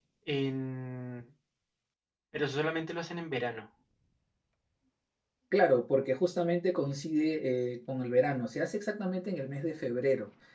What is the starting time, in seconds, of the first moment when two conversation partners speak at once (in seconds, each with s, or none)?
none